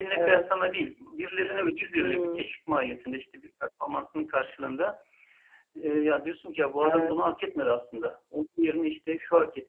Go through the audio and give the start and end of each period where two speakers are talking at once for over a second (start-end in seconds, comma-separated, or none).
none